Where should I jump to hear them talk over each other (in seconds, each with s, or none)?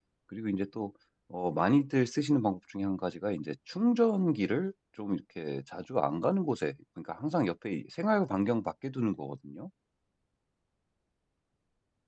none